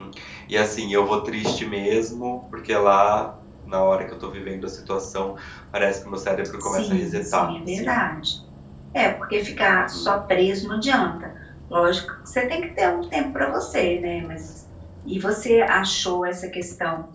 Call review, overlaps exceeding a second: present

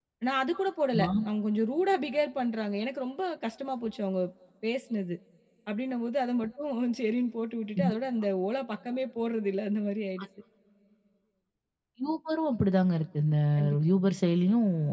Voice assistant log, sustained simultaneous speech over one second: none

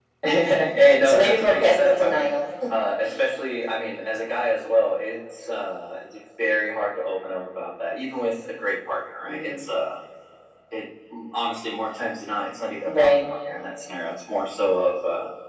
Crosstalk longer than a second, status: present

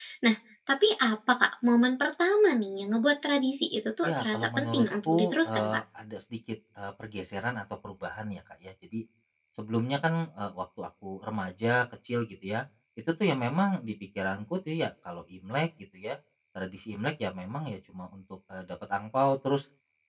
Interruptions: present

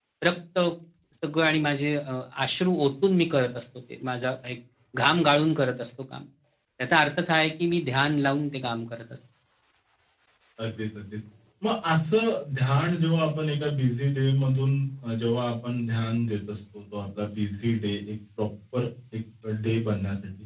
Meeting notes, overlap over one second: none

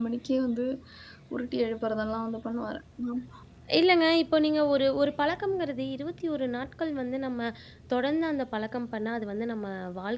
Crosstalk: none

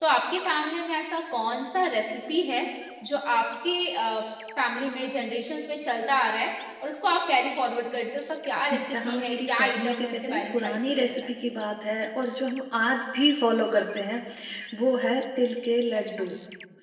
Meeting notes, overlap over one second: present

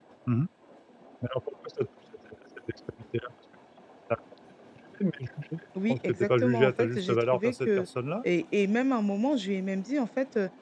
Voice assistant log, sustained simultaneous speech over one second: present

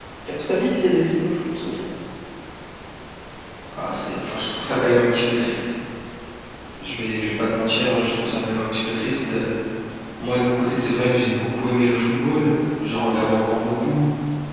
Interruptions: none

